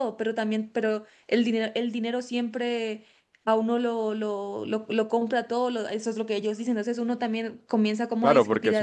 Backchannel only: No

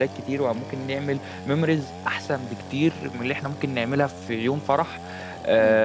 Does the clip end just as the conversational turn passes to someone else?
No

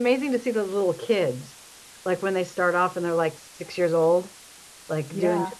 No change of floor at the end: Yes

